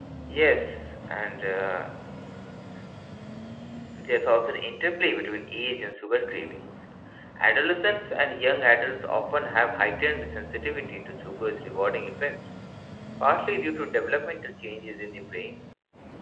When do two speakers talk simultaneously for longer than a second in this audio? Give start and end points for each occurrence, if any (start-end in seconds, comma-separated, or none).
none